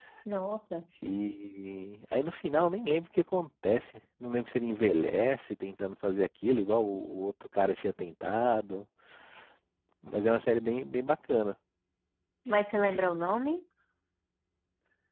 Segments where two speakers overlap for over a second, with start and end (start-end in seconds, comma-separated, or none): none